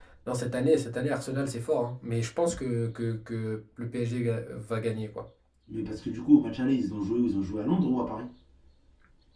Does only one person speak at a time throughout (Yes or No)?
Yes